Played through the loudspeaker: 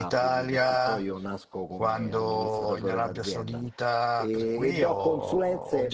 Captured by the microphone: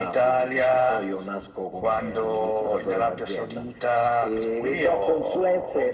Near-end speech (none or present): none